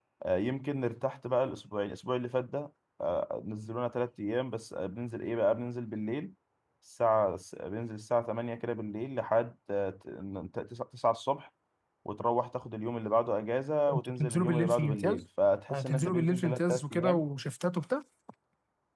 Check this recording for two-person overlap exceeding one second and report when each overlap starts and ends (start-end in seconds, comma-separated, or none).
13.9-15.2, 15.7-17.2